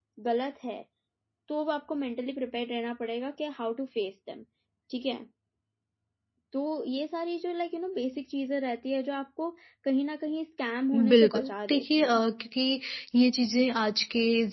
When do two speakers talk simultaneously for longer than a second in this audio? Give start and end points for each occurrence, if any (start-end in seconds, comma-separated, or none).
10.9-12.2